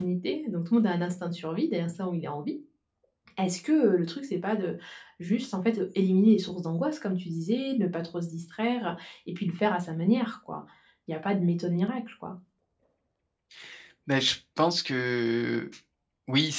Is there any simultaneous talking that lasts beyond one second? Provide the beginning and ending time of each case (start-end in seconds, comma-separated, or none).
none